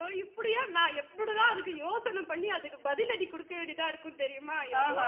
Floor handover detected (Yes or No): Yes